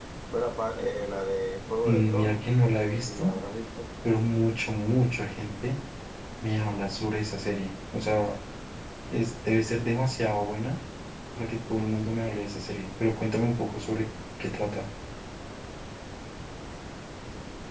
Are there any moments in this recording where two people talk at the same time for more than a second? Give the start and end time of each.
1.8-3.3

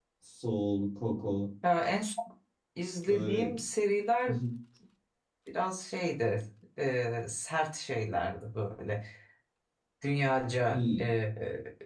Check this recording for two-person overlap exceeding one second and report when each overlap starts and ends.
none

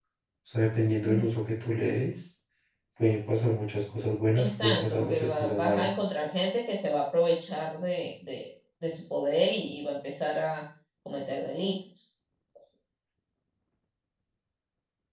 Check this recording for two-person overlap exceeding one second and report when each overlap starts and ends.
4.3-6.0

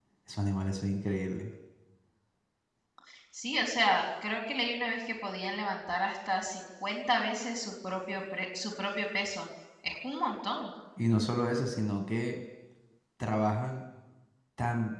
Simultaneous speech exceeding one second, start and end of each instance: none

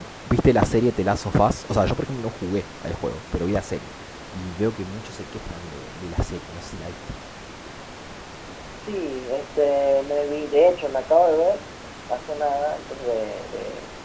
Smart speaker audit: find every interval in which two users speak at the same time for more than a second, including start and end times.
none

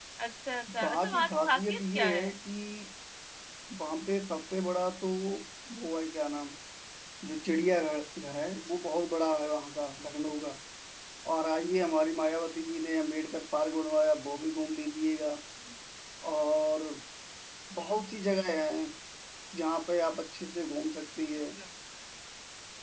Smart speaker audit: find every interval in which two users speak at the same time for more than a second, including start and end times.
0.8-2.3

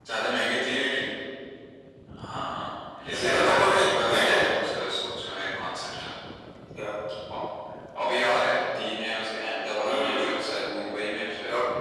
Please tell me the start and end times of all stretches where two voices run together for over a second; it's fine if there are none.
3.3-4.5

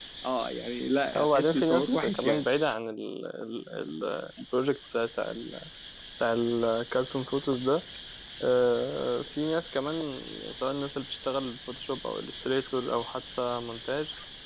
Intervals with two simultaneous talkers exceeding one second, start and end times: 1.1-2.4

